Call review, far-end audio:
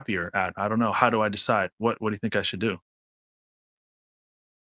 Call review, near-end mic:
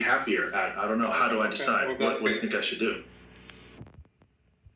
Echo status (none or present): present